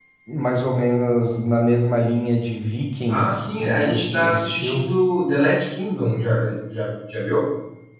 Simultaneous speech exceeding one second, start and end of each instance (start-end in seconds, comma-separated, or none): 3.1-4.8